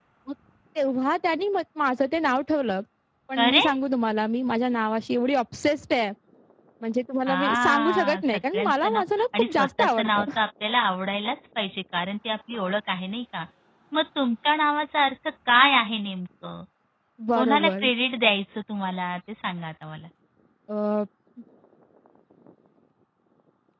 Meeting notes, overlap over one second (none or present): present